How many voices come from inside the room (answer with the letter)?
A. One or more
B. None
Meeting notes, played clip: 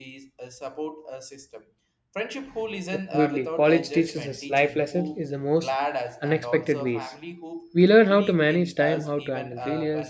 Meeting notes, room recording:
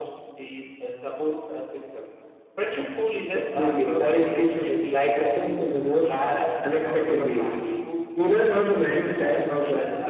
B